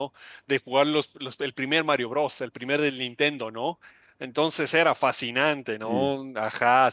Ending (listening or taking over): listening